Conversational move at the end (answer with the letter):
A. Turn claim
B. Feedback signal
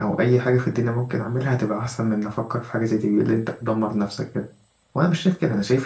B